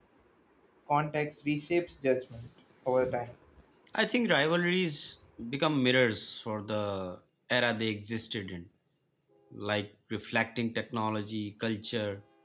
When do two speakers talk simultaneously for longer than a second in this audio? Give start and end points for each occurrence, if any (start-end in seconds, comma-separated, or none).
none